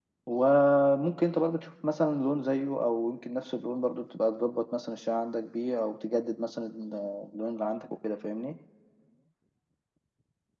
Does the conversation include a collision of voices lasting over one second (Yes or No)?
No